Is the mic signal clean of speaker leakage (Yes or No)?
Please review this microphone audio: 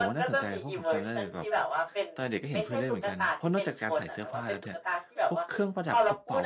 No